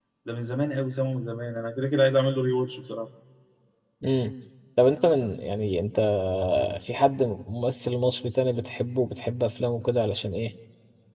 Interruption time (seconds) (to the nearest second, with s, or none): none